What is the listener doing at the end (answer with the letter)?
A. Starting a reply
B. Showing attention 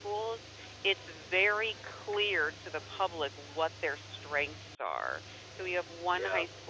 B